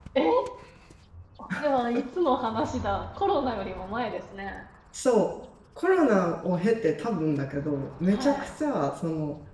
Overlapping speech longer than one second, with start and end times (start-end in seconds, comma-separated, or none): none